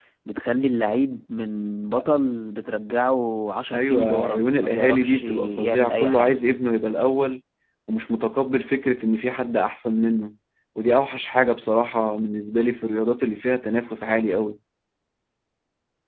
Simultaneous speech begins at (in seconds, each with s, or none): 3.7 s